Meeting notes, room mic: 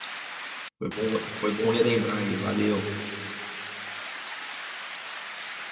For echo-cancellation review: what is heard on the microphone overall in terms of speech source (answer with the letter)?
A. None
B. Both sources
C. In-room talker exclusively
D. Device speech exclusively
C